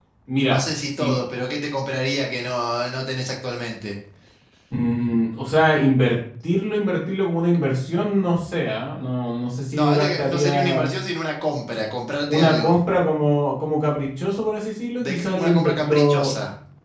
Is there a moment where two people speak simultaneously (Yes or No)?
Yes